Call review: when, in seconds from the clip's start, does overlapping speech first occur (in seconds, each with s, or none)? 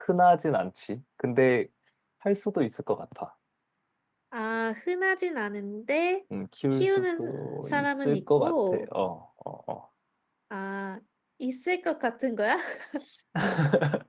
6.7 s